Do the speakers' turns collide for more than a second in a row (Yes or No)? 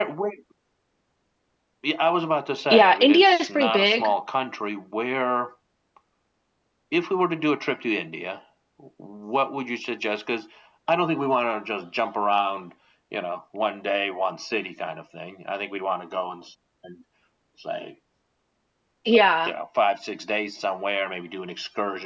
Yes